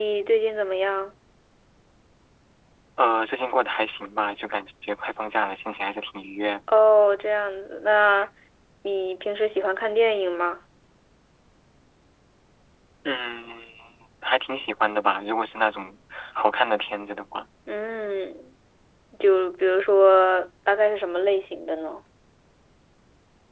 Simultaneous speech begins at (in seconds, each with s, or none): none